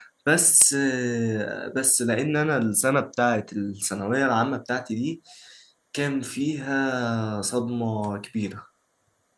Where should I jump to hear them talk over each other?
none

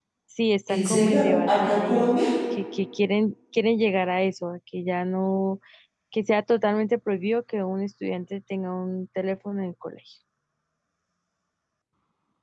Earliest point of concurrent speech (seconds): 1 s

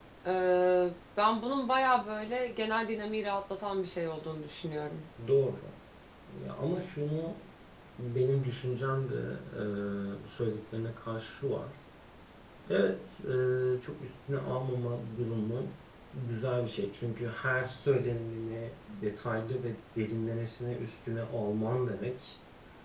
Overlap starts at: none

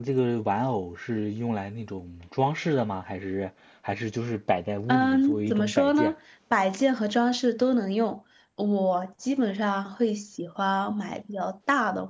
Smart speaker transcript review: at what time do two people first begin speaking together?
5 s

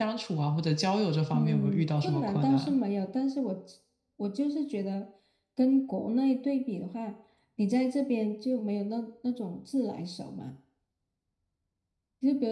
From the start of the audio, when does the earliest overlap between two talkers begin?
1 s

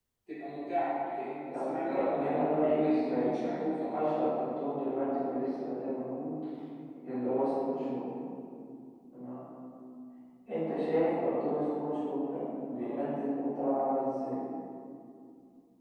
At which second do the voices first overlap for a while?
2 s

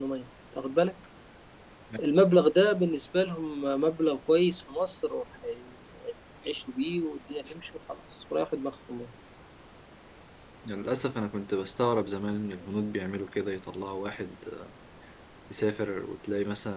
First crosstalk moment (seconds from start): none

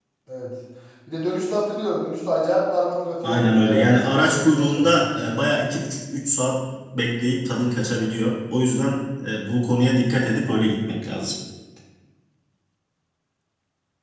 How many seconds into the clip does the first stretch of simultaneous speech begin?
3 s

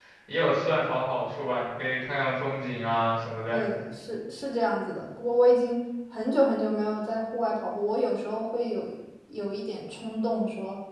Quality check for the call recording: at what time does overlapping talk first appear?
none

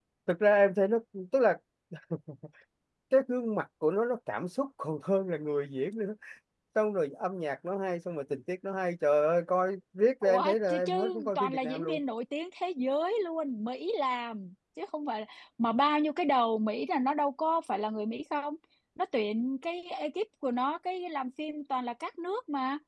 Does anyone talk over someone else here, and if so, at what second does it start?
10 s

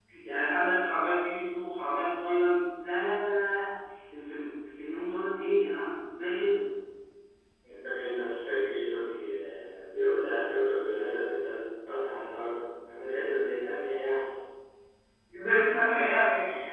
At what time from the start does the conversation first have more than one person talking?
none

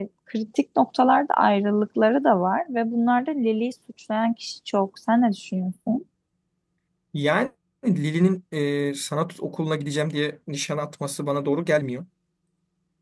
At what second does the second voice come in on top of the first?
none

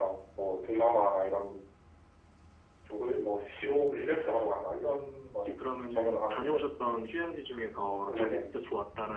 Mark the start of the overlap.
5 s

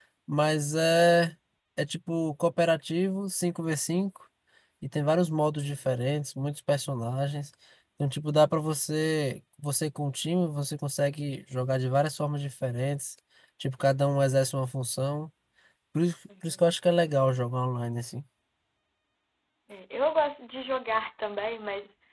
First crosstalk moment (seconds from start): none

